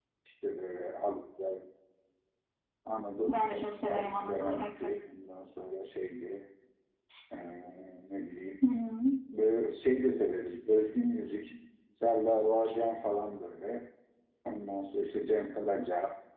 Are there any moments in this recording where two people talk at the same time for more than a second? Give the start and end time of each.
3.3-5.0

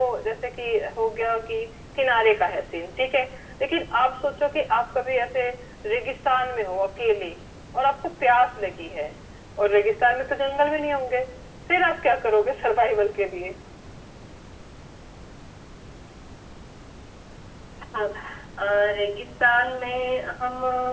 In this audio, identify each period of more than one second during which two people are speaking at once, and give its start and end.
none

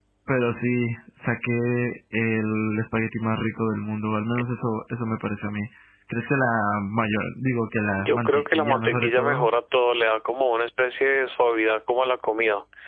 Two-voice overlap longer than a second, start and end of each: 8.0-9.5

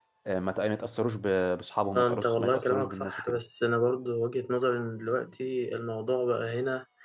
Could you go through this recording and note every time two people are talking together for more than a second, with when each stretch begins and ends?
2.0-3.4

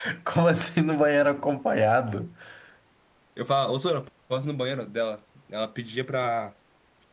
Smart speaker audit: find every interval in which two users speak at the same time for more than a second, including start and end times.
none

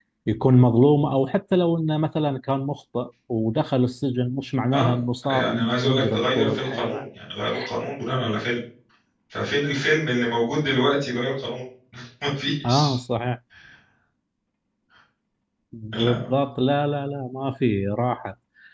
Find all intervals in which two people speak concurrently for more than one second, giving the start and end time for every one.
4.7-7.0

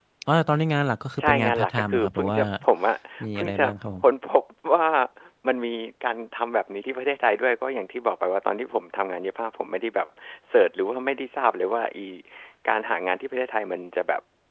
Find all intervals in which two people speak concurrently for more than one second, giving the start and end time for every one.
1.2-2.4

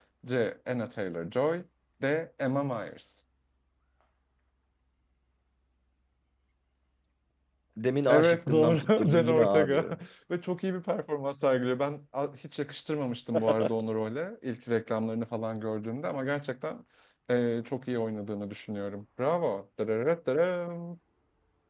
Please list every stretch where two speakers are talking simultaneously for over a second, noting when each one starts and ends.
8.1-9.9

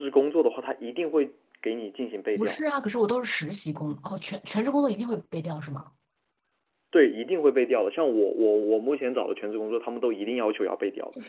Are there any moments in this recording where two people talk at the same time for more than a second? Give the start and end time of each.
none

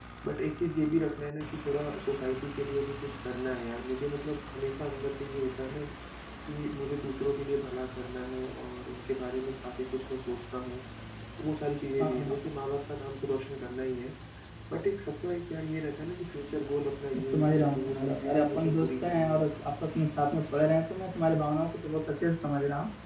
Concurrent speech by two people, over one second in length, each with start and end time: 17.1-19.5

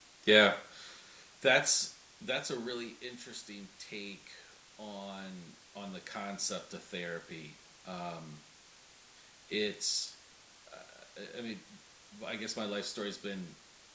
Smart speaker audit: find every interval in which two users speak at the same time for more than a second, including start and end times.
none

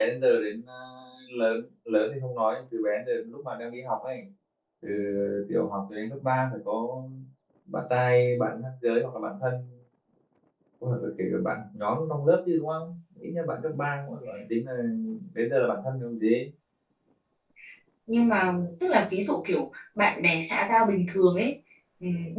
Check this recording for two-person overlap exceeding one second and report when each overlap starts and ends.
none

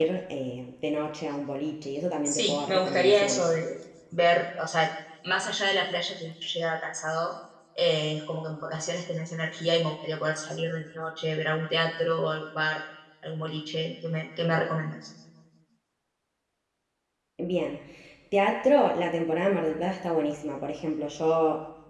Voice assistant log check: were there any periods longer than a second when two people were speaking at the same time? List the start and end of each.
2.2-3.5

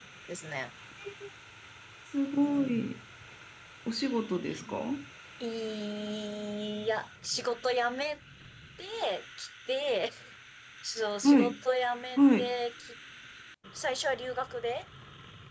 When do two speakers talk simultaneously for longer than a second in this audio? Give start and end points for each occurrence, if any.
none

